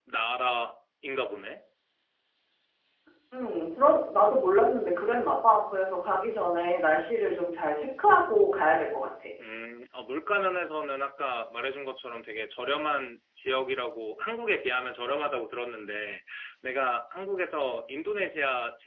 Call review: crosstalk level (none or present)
none